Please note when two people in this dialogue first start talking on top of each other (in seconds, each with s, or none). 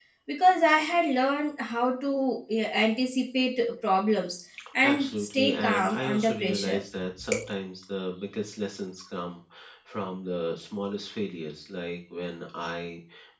4.8 s